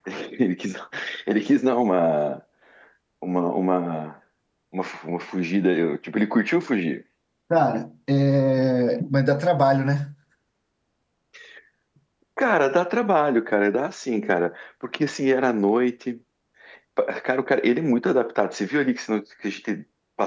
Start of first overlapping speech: none

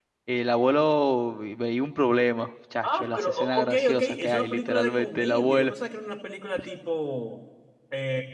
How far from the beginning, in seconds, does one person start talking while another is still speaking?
2.8 s

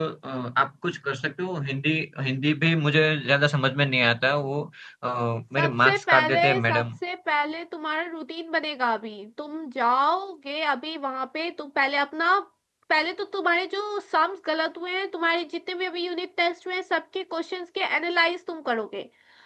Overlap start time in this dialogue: 5.6 s

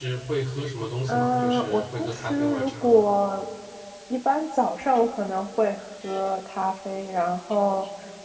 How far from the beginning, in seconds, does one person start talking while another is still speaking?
1.1 s

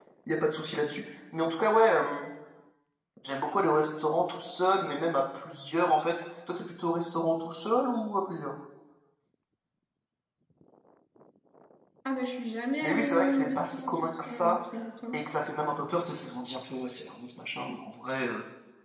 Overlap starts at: 12.8 s

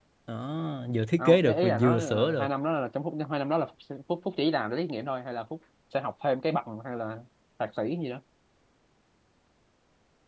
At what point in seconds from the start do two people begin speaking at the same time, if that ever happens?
1.2 s

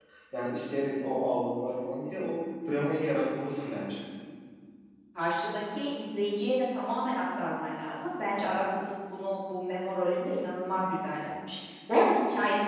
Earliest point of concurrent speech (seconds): none

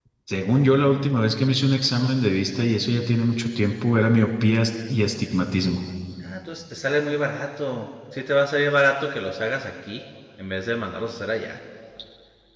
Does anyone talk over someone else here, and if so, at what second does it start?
none

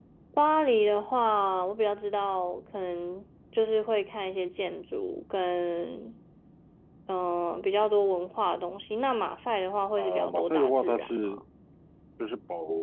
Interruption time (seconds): 10.0 s

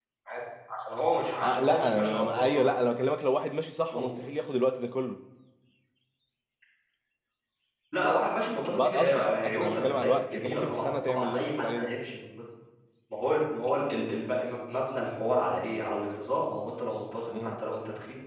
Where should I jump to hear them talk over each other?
1.4 s

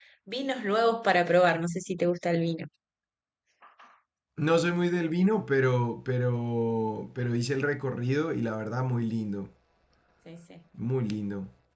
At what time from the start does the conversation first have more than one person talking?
none

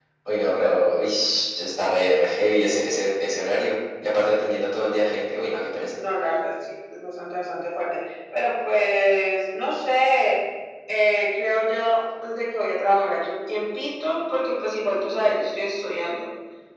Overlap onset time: none

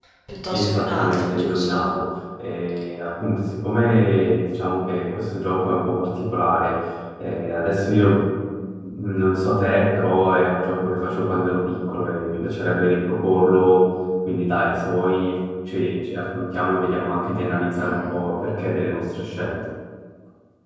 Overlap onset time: 0.5 s

